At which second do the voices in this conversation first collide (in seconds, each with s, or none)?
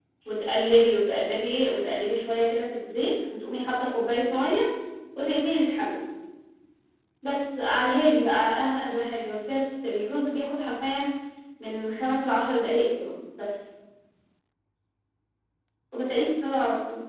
none